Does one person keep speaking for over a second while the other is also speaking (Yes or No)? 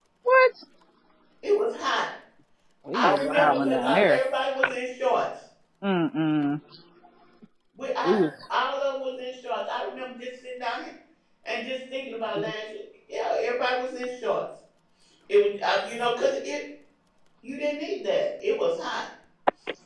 Yes